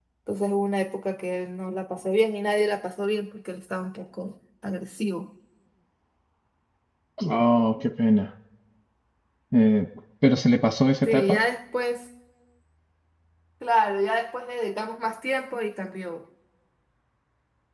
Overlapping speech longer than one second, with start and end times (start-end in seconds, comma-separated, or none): none